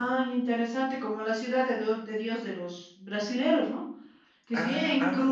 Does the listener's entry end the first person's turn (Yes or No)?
No